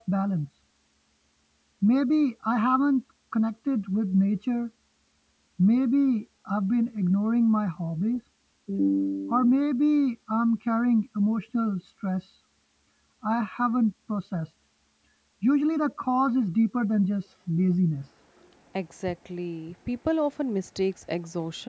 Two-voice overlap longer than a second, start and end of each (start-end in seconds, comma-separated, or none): none